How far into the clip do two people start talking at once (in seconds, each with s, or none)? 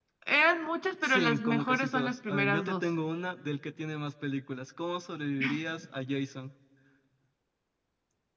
1.0 s